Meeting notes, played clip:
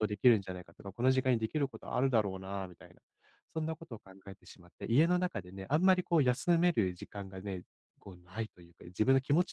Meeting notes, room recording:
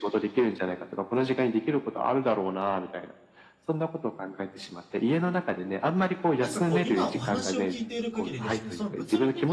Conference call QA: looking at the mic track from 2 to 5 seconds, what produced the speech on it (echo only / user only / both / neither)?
echo only